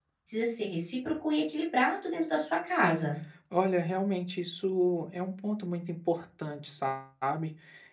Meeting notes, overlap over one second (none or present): none